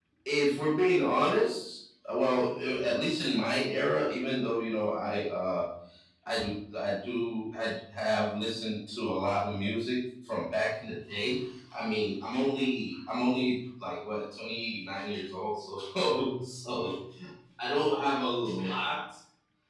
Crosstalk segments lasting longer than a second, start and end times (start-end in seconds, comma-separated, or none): none